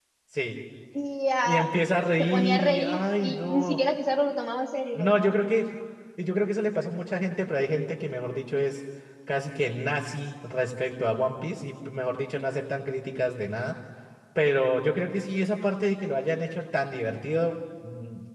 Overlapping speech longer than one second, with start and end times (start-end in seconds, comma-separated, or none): 2.2-3.8